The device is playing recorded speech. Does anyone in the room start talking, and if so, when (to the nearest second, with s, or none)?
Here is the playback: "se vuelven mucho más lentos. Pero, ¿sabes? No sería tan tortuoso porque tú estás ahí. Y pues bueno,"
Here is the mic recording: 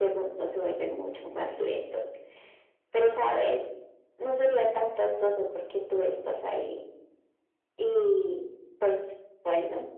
none